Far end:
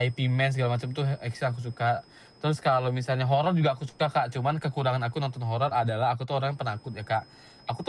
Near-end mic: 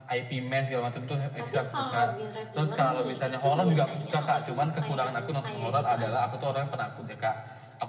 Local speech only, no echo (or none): tapi kalau genre film nih itu biasanya Kakak tuh suka yang kayak gitu aja